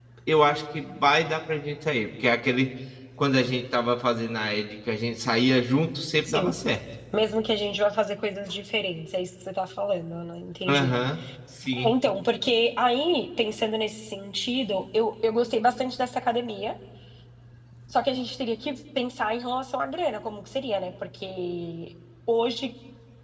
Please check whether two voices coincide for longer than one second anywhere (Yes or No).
No